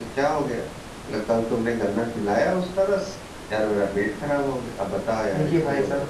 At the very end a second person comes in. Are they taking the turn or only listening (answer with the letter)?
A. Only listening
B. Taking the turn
B